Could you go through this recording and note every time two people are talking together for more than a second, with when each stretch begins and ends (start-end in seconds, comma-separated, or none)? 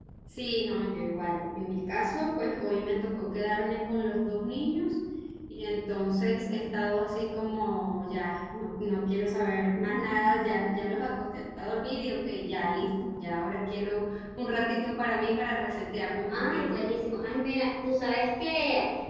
none